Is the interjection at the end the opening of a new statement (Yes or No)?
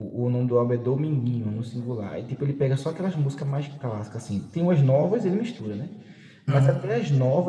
No